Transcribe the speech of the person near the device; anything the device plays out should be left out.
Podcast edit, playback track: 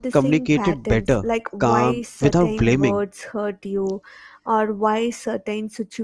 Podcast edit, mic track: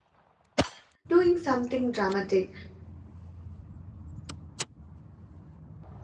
doing something dramatic.

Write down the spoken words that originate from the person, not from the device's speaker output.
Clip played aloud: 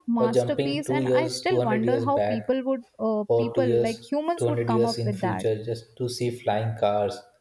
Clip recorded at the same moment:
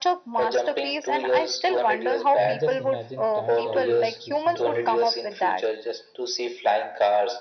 and just imagine time traveling to see all

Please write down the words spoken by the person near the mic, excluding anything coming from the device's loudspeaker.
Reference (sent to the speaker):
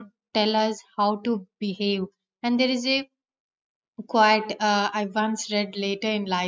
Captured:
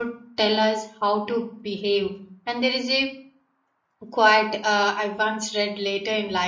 none

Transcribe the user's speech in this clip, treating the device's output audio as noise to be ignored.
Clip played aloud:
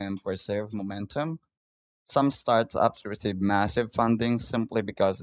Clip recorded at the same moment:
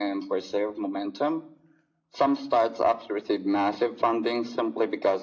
none

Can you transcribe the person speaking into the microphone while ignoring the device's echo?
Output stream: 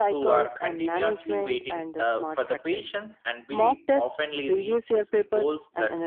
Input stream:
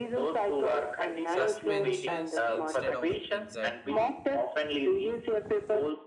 suspensions instead of excitement

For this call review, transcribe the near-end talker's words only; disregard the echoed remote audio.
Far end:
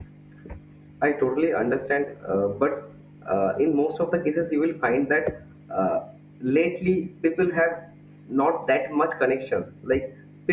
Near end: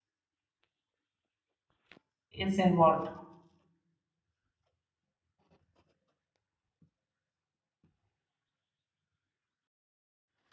is involved

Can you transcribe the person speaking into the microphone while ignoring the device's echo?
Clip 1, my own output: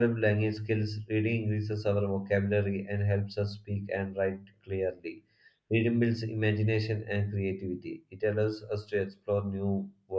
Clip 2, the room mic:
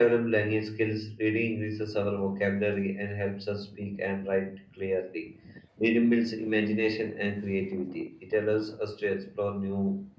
none

